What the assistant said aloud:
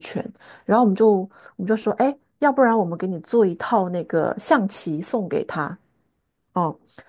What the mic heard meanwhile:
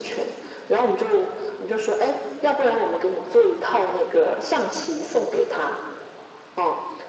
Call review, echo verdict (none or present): present